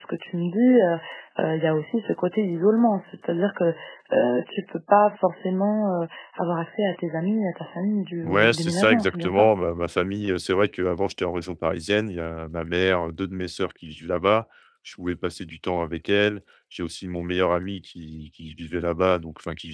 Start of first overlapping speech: 8.2 s

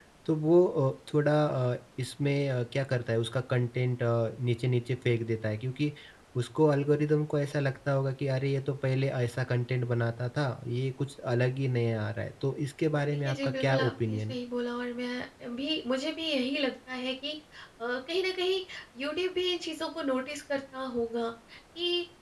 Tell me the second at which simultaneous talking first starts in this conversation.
12.9 s

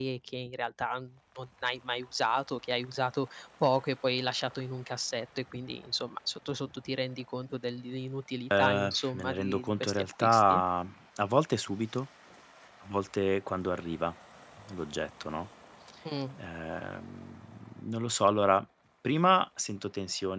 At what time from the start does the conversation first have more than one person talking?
8.5 s

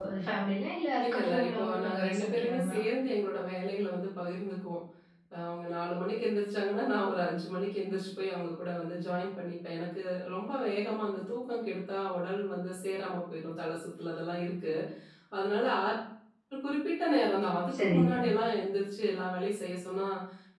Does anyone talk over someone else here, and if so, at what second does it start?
1.1 s

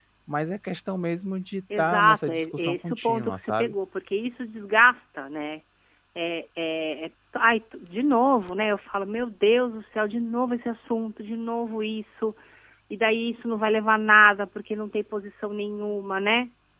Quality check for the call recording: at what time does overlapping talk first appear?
1.7 s

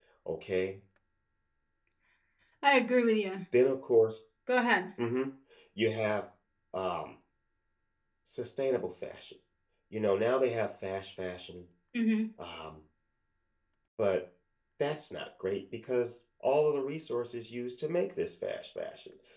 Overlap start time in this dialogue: none

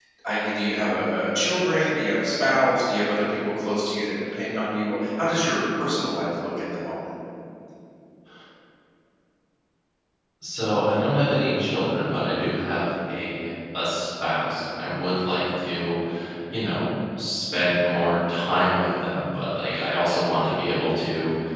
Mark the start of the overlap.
none

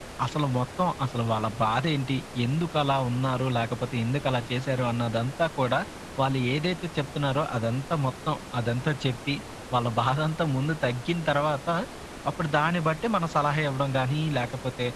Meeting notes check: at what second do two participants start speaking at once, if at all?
none

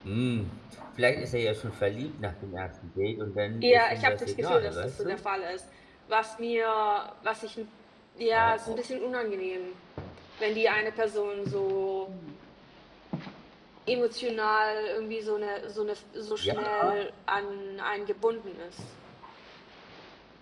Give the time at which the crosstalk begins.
3.6 s

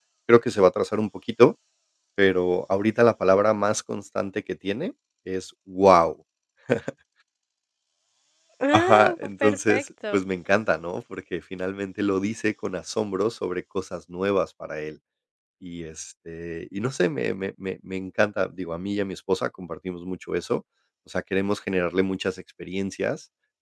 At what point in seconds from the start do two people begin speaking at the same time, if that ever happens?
8.7 s

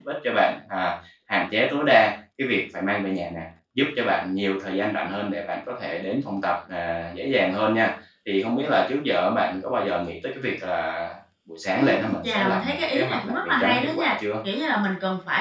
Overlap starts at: 11.7 s

